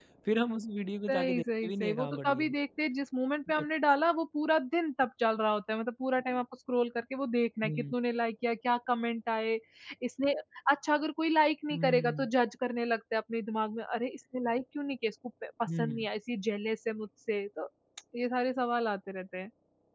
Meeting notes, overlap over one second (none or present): present